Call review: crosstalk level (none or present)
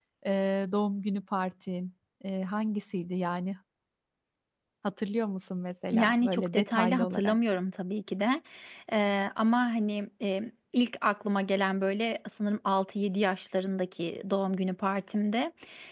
present